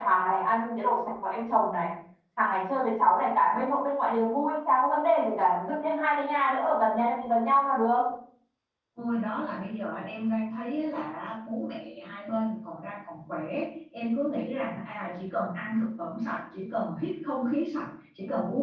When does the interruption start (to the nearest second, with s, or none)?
none